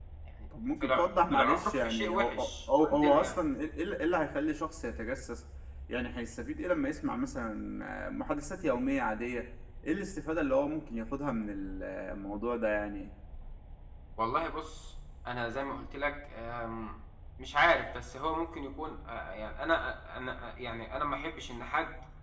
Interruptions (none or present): present